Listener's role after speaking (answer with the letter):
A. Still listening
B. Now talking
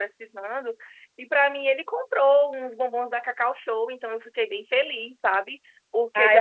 B